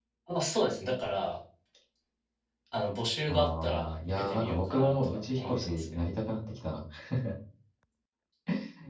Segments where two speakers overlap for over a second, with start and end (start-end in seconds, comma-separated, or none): 3.3-6.0